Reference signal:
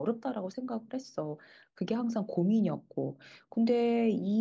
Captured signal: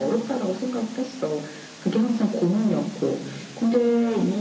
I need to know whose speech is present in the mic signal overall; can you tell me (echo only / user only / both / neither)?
echo only